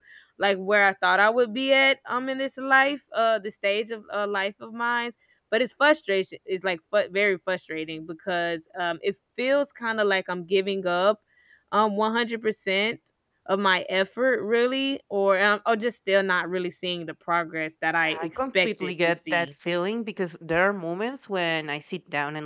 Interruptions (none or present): present